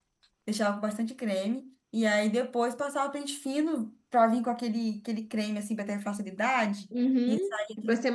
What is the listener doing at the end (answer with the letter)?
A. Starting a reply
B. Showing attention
A